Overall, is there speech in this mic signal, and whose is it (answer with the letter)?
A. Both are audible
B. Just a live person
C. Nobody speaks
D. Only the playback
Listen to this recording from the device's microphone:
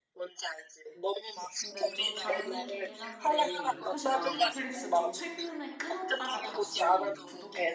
A